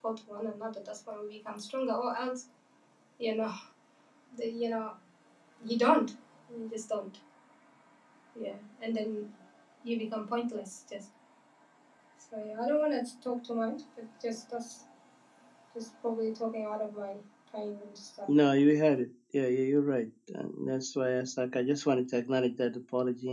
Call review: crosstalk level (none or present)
none